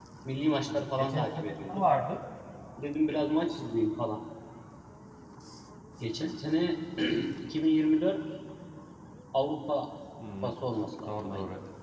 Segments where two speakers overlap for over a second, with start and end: 0.7-1.9

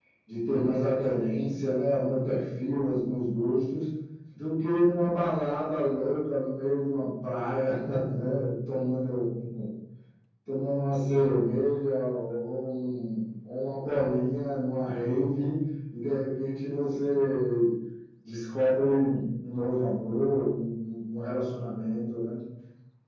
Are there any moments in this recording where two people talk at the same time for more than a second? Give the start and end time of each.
none

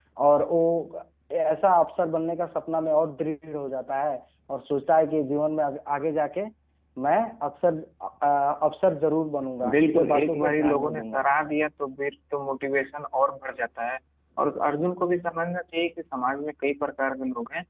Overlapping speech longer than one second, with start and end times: 9.7-11.2

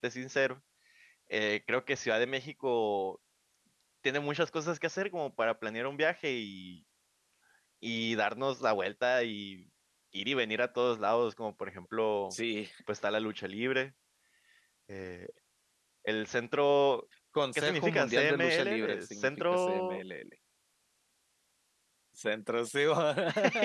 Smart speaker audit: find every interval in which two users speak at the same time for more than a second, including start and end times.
17.6-20.0

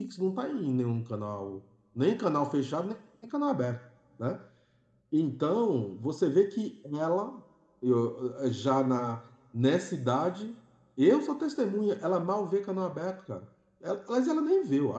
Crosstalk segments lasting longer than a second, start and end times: none

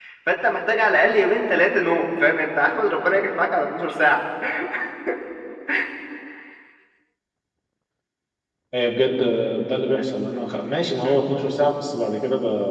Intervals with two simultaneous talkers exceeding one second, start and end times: none

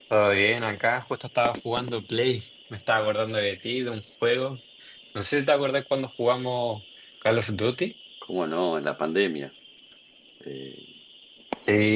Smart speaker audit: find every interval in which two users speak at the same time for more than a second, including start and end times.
none

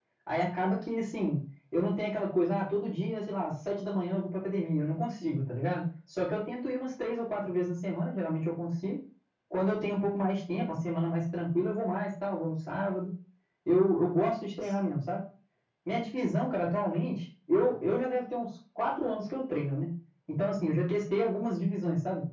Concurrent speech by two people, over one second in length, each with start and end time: none

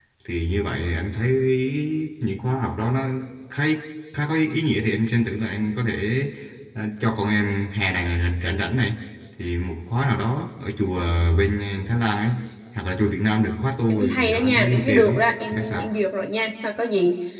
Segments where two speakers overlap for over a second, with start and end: 13.9-15.9

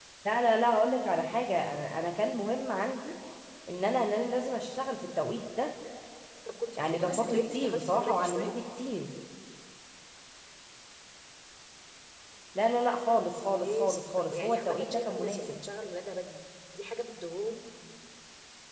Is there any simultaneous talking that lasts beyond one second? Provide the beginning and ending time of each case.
6.8-8.5, 13.4-15.6

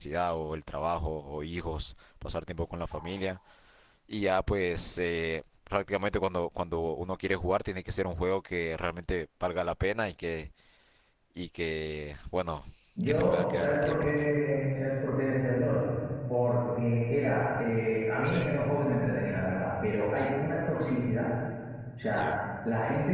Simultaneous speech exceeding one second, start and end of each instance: 13.1-14.3

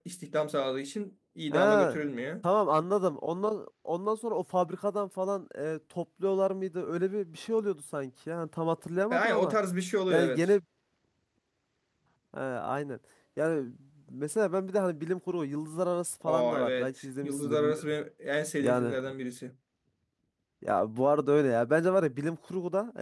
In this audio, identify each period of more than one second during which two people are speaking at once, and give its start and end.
16.2-17.8

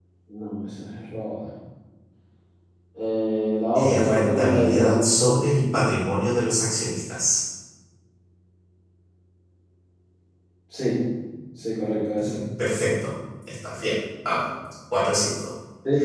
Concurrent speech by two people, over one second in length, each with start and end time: 3.8-5.0

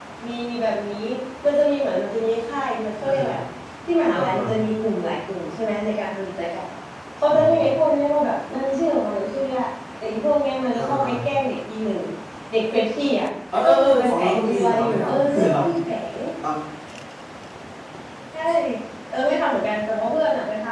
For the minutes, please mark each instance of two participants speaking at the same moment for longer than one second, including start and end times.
13.6-15.6

